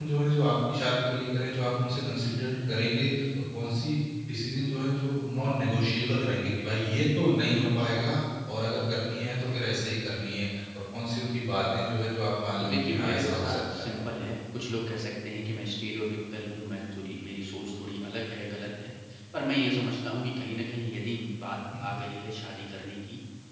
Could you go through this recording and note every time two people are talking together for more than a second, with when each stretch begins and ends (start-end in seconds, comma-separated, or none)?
12.6-13.9